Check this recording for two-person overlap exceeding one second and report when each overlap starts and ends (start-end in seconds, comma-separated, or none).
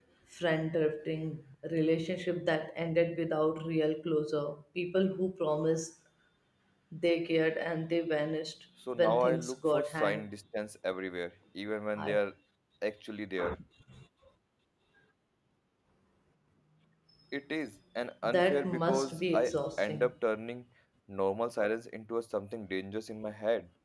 9.0-10.2, 18.2-20.1